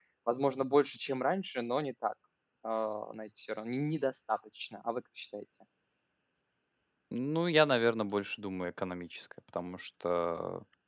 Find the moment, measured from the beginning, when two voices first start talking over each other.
none

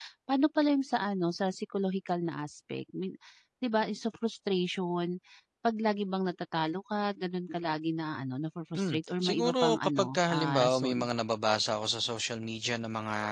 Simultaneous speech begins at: 8.7 s

